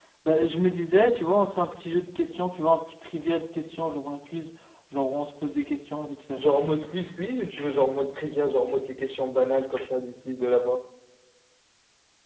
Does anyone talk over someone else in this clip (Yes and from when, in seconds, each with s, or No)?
No